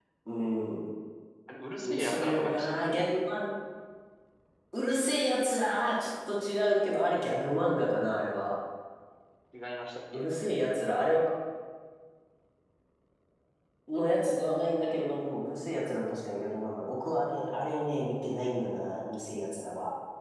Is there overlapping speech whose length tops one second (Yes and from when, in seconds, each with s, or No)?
Yes, from 1.8 s